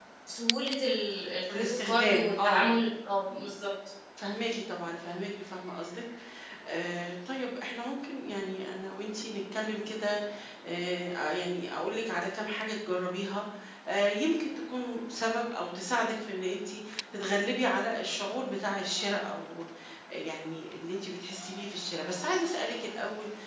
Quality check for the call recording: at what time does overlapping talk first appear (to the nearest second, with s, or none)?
1 s